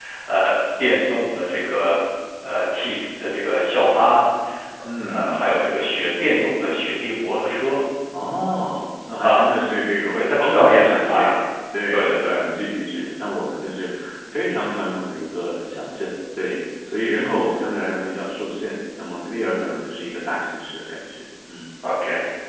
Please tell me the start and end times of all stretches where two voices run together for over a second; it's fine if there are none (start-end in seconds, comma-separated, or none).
10.1-11.4